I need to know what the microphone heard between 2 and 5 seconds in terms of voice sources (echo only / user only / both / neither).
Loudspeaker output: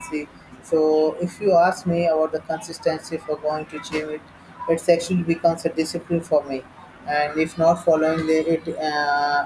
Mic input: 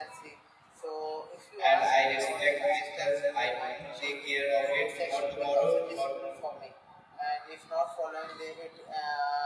both